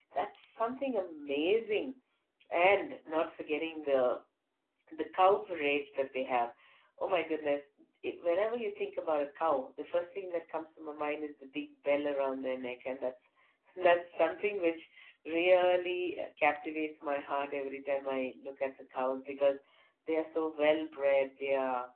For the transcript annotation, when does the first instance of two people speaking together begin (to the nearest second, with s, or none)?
none